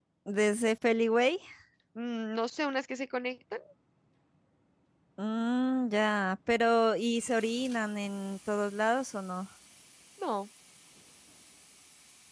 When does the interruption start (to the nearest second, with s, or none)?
none